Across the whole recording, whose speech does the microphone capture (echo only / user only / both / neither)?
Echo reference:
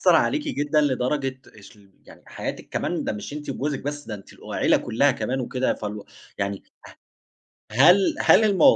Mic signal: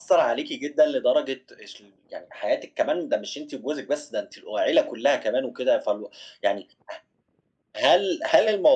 echo only